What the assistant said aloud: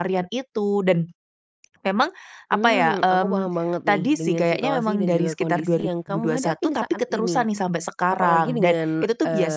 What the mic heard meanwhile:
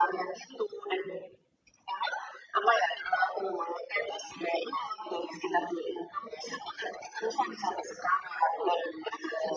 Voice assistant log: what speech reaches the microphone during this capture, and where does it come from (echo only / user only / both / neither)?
echo only